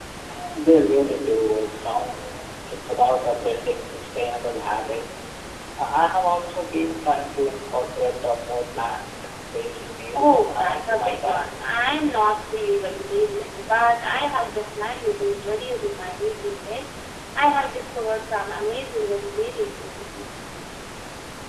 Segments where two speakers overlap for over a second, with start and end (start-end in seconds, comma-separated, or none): 10.2-11.5